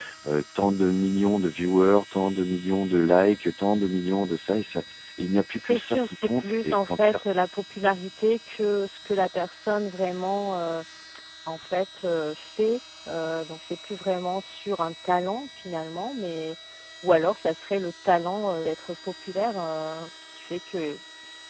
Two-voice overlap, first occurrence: 5.6 s

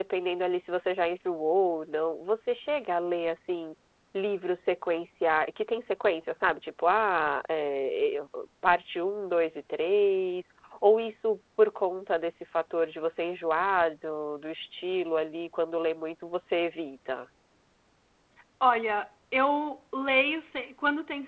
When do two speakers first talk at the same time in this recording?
none

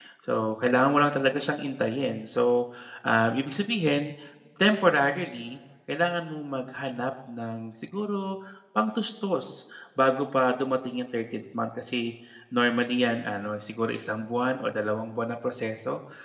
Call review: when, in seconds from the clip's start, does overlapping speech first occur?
none

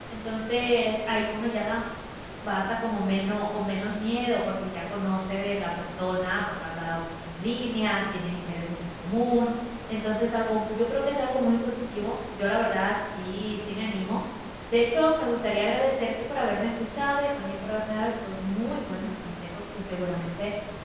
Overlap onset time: none

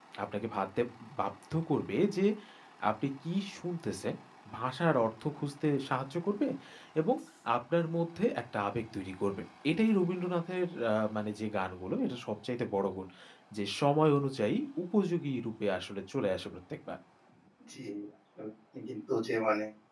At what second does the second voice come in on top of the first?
none

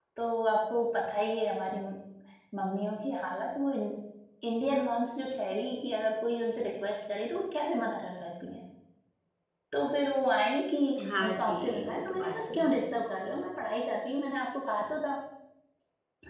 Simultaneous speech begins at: 11.3 s

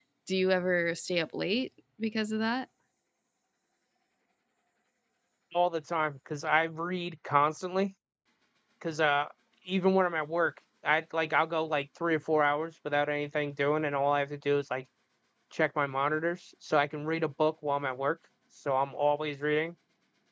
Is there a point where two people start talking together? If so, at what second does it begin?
none

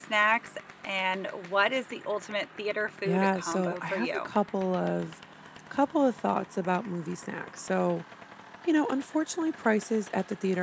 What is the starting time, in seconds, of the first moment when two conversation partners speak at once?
3.0 s

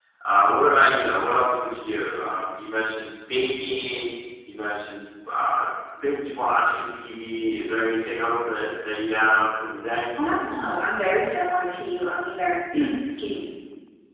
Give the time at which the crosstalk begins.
none

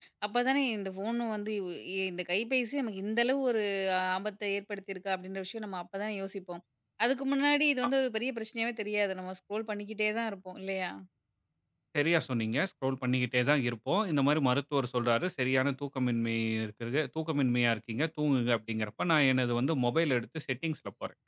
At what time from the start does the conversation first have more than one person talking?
none

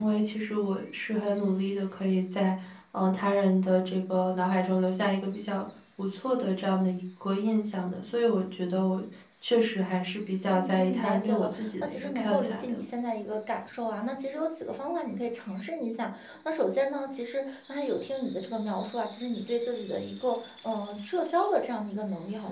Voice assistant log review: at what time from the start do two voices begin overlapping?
10.5 s

